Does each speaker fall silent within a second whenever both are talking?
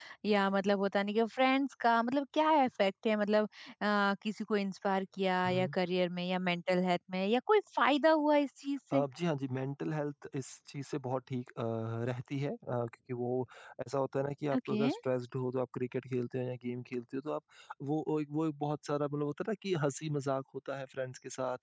Yes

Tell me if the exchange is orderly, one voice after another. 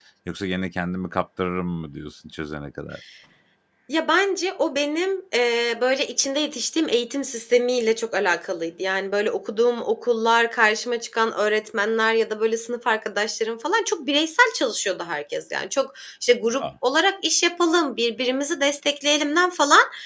Yes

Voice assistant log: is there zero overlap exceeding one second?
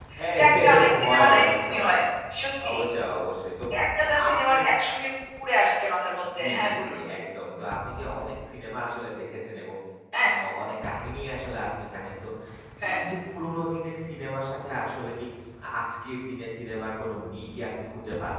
No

